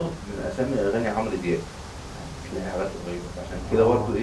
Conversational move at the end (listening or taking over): listening